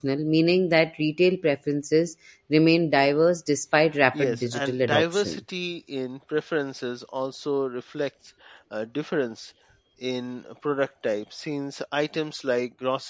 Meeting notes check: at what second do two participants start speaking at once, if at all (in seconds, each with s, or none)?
4.1 s